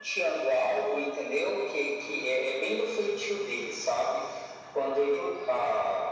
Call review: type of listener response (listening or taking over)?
listening